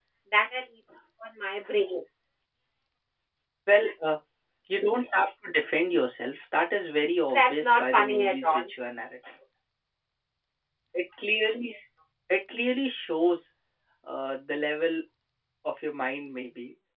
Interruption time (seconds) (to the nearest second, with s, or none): 7 s